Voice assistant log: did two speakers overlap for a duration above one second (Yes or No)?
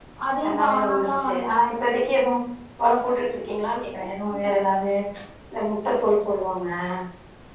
Yes